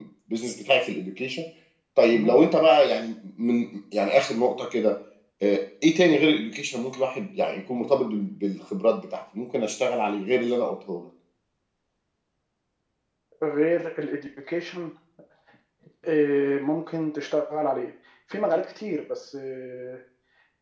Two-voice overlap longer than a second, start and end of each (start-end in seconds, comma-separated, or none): none